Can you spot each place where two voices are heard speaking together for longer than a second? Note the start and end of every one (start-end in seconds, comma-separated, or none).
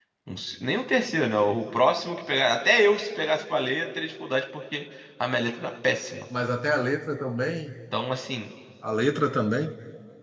none